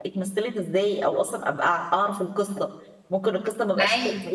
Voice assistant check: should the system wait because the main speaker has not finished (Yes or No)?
Yes